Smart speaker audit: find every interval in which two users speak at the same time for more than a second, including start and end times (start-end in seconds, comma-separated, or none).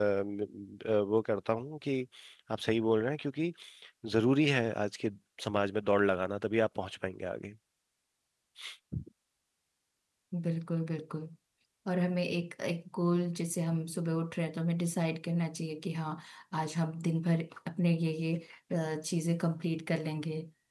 none